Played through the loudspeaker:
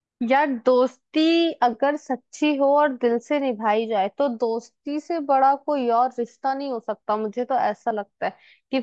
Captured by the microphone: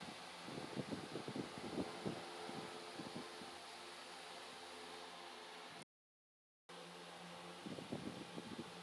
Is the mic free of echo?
Yes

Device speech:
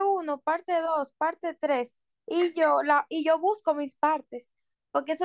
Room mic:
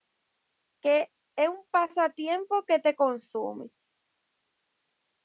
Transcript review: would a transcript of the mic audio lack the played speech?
Yes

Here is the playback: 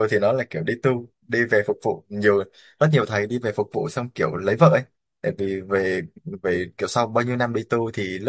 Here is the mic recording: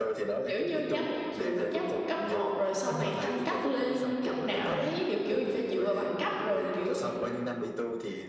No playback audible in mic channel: No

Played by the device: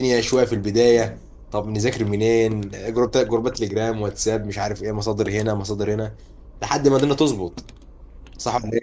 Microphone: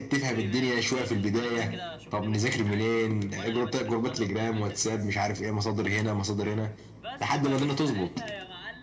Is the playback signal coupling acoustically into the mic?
Yes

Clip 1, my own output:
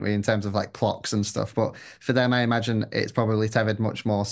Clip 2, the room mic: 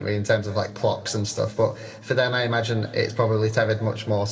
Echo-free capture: No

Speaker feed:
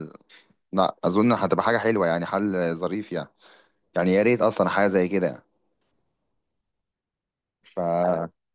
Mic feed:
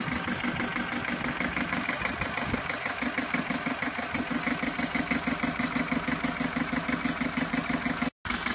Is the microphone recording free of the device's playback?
Yes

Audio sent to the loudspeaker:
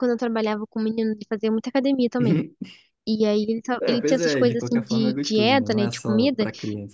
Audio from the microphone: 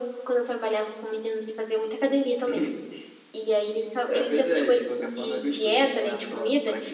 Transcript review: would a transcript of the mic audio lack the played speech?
No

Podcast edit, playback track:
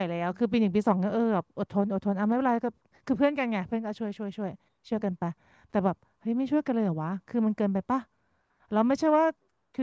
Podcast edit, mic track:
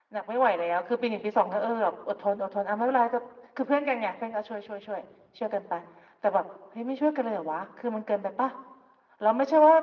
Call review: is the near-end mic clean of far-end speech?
No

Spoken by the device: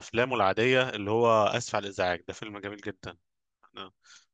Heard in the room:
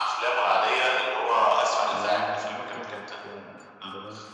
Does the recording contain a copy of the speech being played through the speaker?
Yes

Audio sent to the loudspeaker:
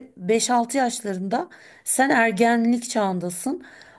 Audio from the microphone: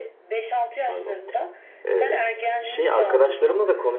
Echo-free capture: No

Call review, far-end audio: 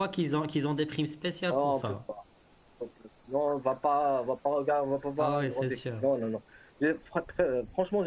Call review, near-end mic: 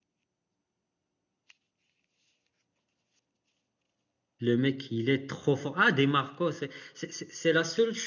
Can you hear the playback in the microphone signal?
No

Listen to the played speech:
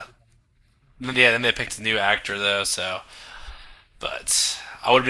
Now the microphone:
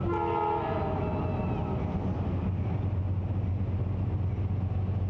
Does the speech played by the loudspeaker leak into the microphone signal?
No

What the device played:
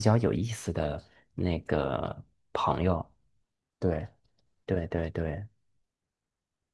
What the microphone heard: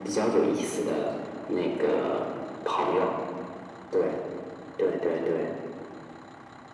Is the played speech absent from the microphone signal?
No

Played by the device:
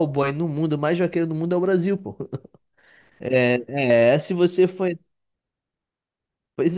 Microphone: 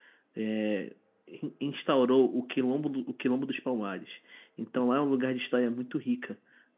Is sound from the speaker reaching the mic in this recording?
No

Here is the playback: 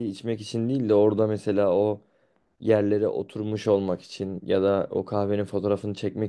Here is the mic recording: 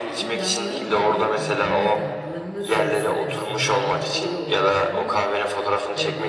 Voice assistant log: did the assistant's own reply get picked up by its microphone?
Yes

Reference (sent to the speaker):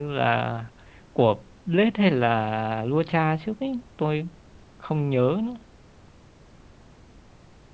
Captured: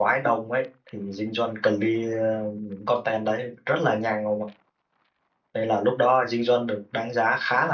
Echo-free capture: Yes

